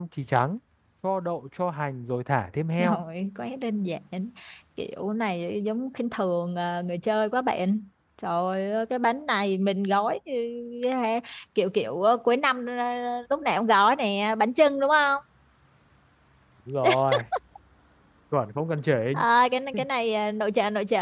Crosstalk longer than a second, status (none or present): none